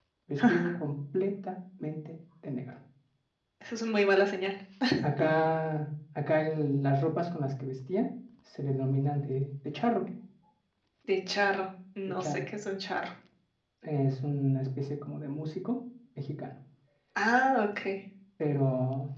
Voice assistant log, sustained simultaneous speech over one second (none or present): none